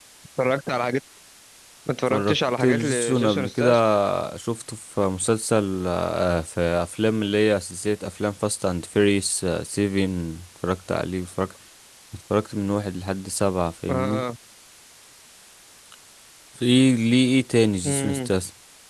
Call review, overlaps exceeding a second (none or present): present